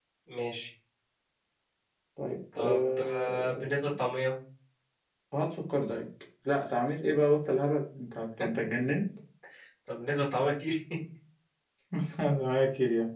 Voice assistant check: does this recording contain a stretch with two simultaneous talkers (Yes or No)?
Yes